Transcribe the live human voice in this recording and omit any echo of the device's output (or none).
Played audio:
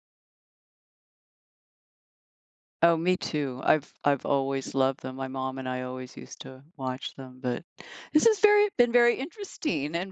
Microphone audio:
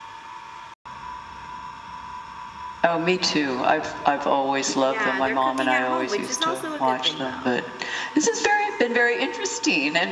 Yeah, they're cooking at home, which is also a good thing, though.